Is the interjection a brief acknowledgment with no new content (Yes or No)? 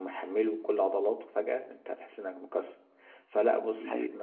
Yes